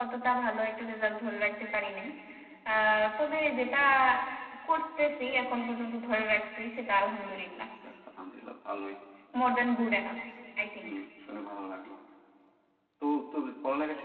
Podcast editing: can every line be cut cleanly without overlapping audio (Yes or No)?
Yes